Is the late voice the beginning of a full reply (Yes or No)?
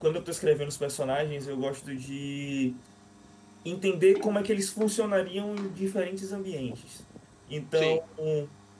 No